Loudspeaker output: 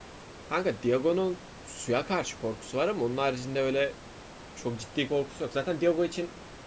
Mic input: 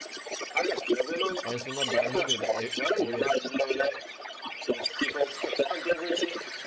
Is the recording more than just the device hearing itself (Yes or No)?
Yes